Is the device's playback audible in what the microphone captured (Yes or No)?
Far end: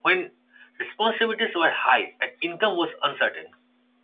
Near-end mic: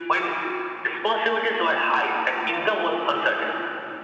Yes